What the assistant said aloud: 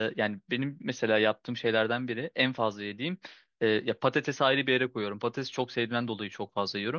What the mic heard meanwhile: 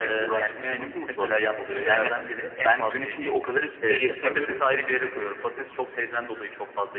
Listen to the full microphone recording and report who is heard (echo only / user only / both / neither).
both